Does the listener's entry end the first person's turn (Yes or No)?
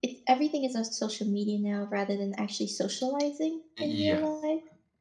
Yes